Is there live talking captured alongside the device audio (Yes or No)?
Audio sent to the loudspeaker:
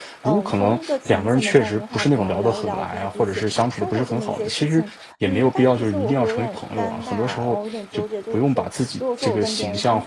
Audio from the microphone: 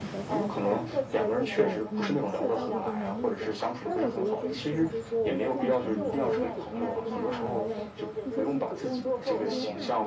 Yes